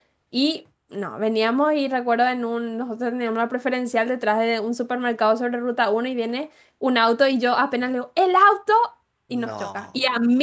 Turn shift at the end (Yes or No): No